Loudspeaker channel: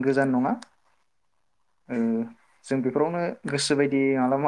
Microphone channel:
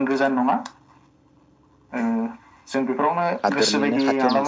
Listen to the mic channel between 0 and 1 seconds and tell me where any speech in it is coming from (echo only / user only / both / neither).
echo only